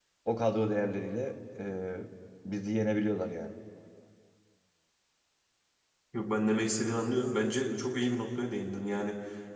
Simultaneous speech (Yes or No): No